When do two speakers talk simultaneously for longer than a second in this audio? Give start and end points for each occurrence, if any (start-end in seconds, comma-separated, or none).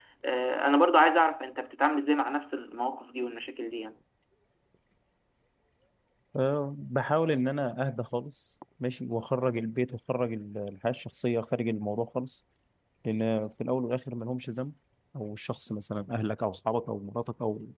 none